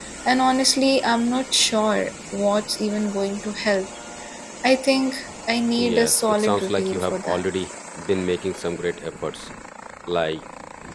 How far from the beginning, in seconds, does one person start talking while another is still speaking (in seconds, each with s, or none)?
5.8 s